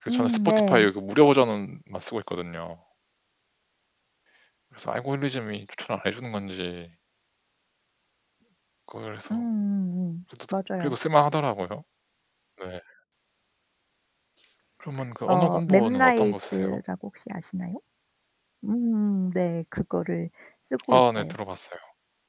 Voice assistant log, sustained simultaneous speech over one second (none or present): present